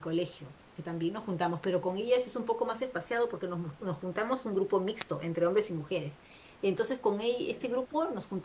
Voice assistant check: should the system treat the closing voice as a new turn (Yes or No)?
No